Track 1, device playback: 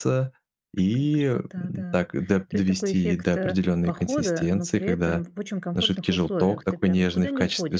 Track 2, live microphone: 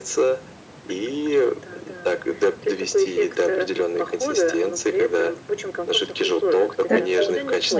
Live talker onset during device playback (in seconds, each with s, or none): 6.8 s